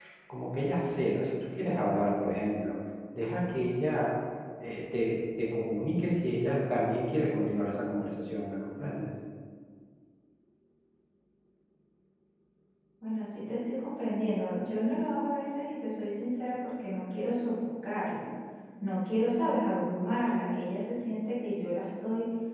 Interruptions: none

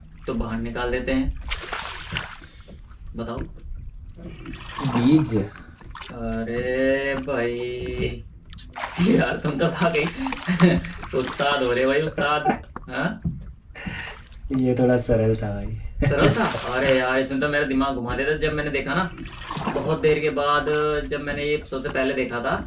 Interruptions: none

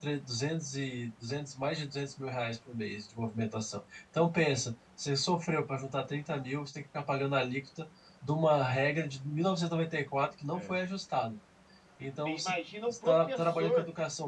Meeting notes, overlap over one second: present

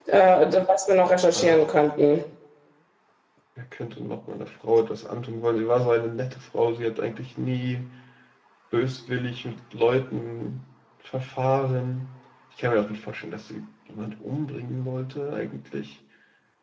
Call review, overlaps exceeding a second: none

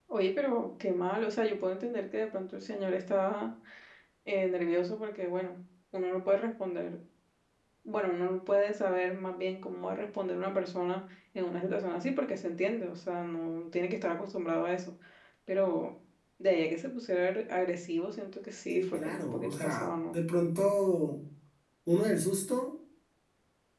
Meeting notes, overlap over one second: present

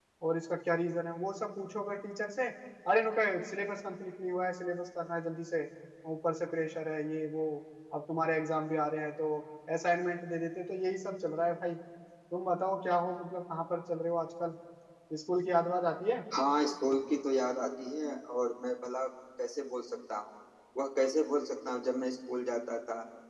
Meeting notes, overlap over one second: none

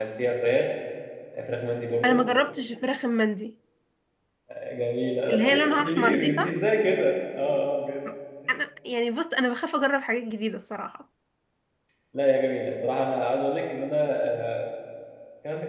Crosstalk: present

